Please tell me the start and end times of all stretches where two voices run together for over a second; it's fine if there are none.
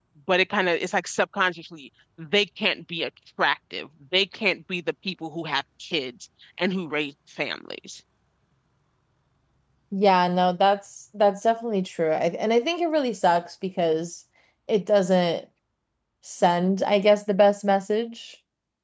none

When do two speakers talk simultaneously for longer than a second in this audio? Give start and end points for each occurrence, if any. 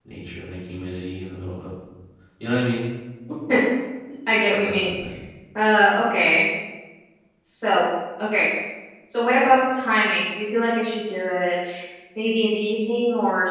none

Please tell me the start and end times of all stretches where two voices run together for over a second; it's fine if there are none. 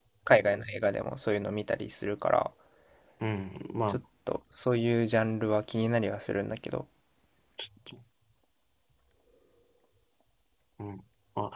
none

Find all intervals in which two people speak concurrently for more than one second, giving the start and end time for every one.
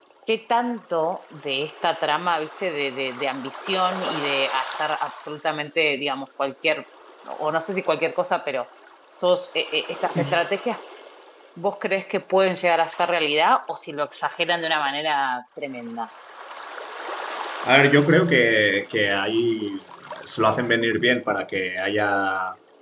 none

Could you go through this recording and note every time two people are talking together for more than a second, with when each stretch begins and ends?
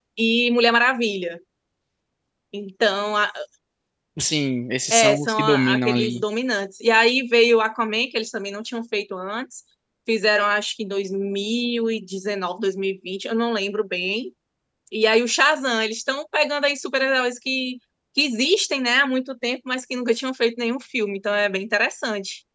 4.9-6.2

